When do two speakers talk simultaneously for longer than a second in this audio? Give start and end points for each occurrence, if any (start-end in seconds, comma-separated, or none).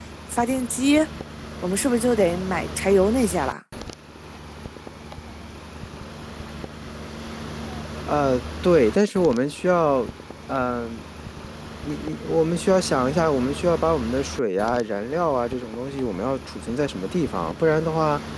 none